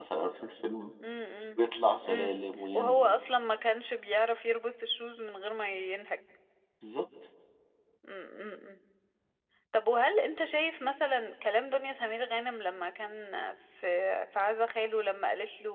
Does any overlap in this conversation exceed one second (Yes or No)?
No